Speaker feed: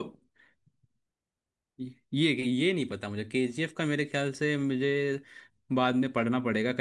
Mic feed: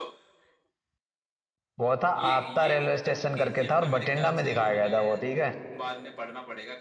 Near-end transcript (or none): वो था आपता रेलवे स्टेशन करके था और बठिंडा में दिखाया गया था वो ठीक है